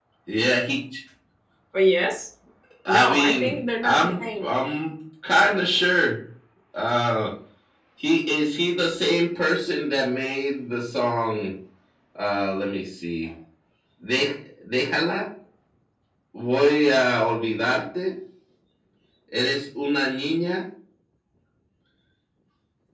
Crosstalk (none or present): present